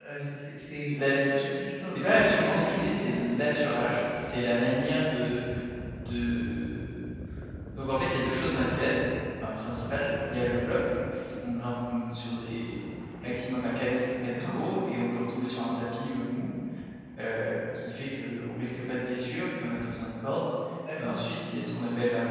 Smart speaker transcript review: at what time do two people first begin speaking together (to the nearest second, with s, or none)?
1 s